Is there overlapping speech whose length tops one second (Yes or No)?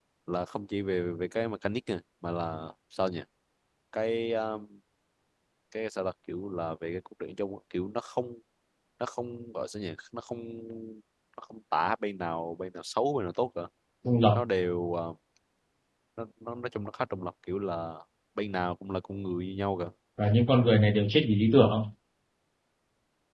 No